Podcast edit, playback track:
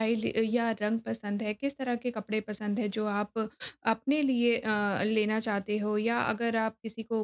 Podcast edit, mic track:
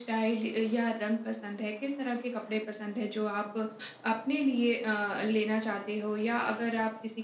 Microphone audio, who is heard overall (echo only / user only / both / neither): echo only